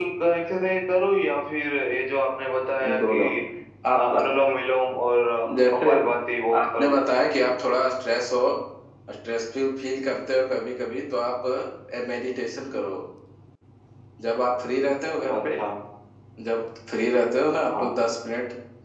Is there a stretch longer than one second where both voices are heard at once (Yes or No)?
No